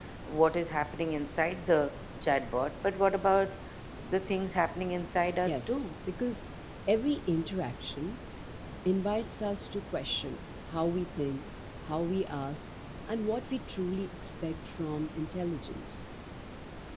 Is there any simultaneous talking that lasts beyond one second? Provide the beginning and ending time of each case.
none

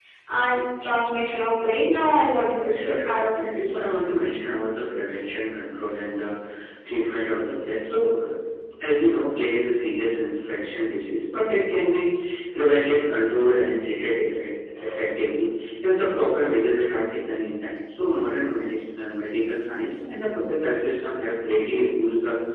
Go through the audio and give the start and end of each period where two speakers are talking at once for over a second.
2.6-3.9

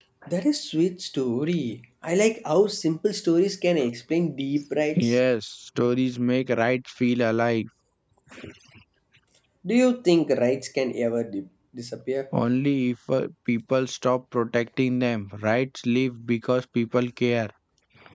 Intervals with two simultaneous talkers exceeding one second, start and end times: none

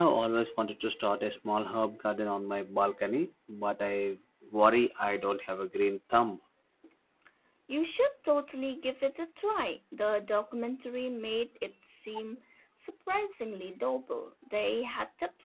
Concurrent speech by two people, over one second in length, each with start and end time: none

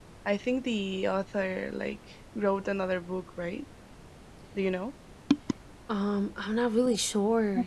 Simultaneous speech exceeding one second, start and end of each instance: none

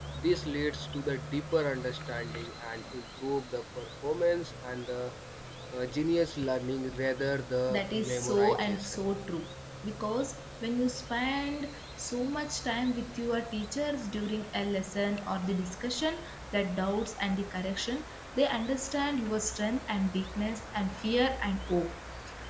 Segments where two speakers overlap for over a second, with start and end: 7.7-9.0

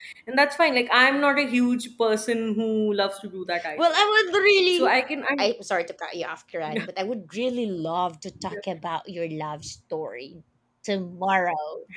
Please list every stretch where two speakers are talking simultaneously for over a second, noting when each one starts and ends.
none

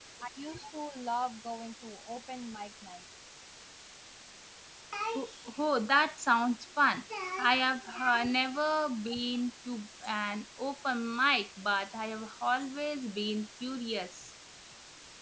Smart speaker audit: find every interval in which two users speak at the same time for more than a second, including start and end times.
none

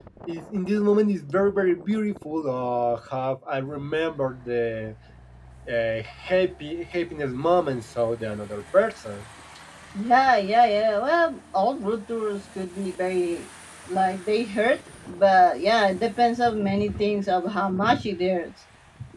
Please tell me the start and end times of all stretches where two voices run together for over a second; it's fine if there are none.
none

